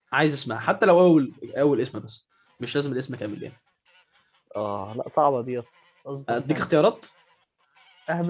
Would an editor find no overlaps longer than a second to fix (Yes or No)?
Yes